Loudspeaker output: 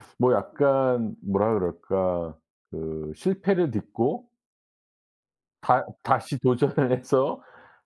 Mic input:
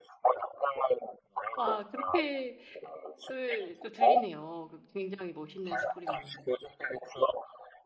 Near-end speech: present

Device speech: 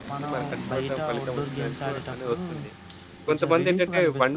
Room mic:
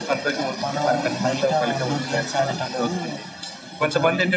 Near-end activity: none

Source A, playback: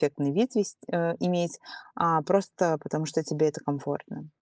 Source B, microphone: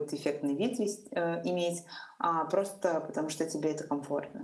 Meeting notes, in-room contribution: none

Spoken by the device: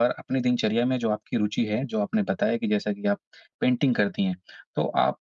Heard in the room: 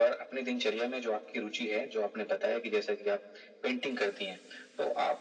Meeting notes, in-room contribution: none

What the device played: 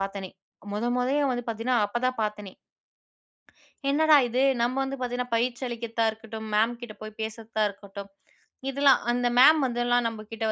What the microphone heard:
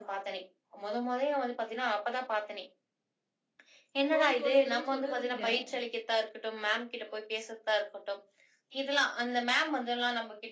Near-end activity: present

